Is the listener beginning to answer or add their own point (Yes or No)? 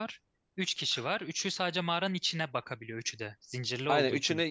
Yes